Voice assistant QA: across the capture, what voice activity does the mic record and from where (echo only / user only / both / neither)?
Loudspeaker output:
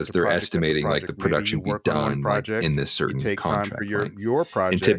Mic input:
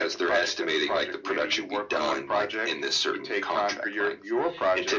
echo only